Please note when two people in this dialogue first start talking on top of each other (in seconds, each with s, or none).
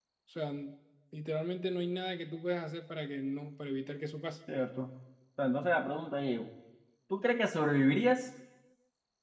none